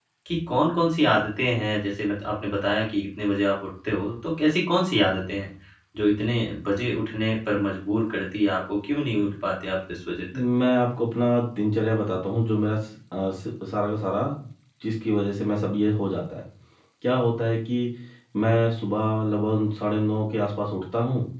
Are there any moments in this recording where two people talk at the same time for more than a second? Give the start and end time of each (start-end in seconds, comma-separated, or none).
none